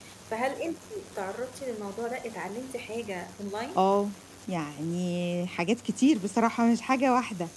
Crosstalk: none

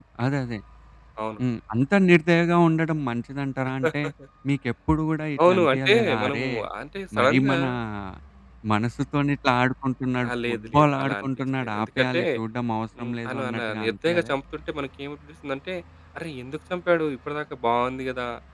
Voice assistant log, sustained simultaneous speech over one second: present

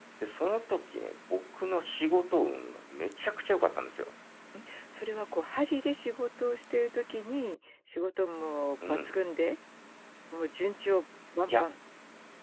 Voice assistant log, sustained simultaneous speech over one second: none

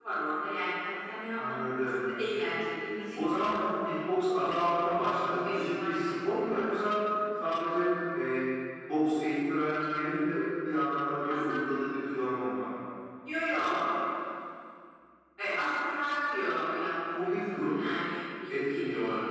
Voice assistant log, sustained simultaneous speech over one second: present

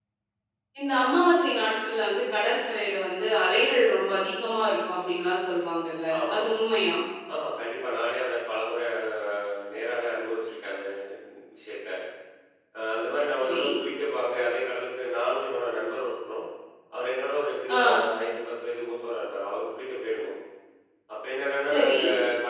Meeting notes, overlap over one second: none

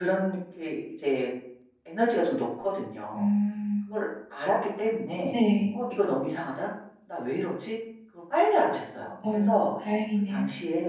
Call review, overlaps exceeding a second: none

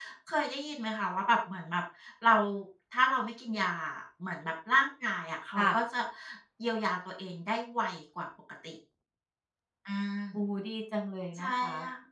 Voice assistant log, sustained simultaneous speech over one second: none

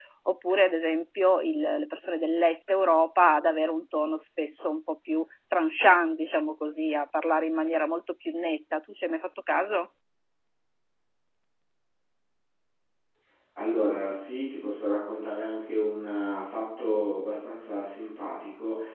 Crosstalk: none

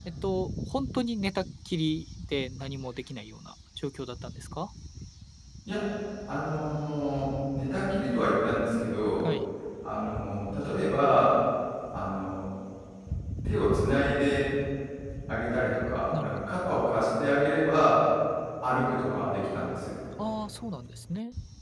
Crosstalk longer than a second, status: none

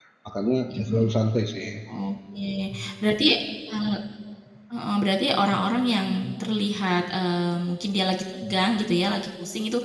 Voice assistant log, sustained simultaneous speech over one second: none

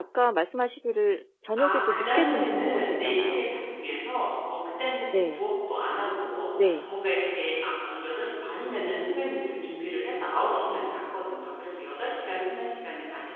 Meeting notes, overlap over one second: present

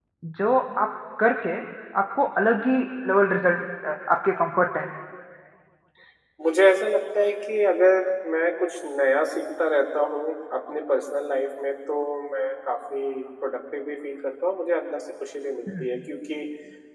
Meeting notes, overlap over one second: none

